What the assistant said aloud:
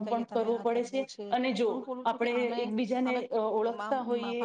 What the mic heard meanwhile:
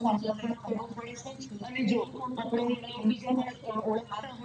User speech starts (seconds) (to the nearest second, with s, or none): none